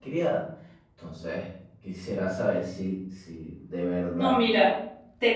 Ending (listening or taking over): taking over